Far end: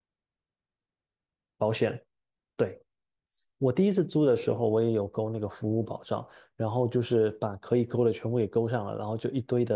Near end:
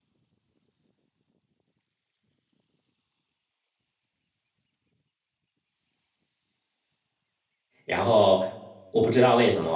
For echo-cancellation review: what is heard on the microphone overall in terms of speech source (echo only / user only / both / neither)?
user only